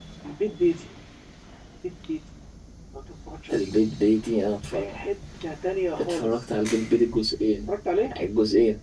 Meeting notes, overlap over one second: none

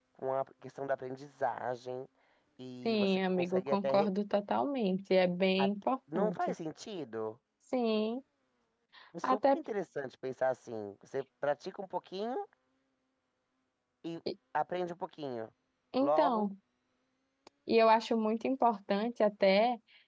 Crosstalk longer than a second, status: present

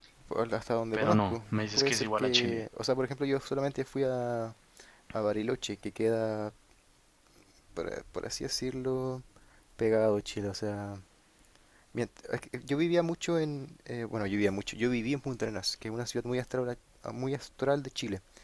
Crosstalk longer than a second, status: present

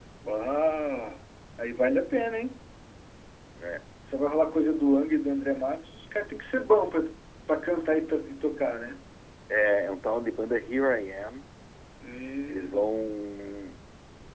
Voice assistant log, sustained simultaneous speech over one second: none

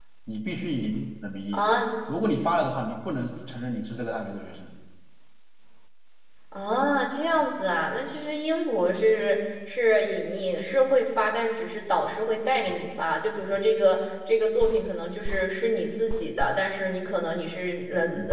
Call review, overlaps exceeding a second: none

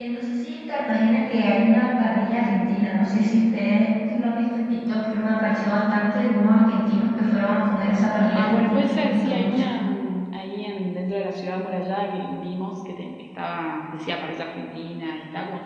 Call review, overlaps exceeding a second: present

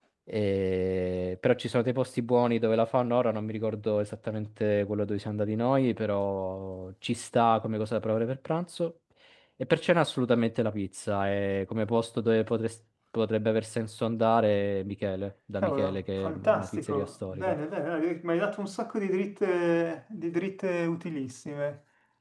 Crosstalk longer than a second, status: present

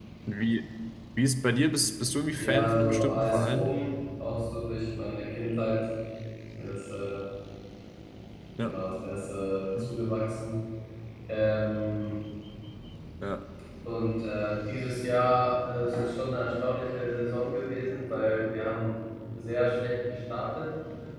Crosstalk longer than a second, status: present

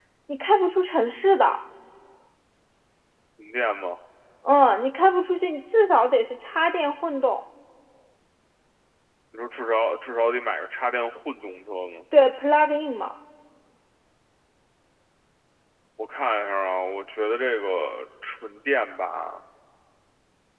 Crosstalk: none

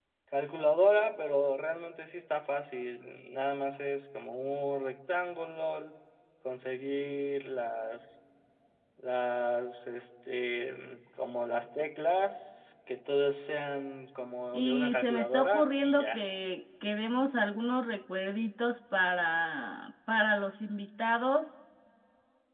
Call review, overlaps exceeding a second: present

